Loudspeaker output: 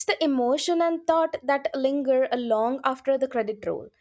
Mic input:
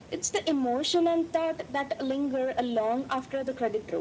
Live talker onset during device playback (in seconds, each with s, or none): none